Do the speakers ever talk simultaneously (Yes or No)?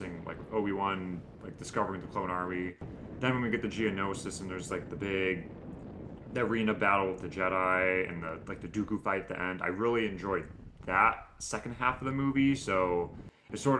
No